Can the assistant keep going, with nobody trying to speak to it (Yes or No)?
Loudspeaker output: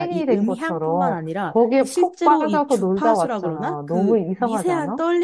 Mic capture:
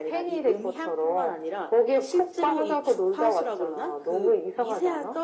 Yes